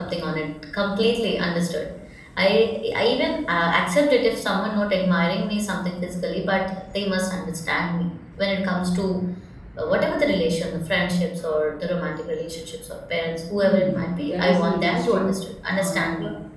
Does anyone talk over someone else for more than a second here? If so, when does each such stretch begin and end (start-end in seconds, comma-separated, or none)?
13.6-15.4